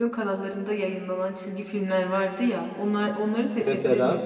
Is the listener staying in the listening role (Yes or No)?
Yes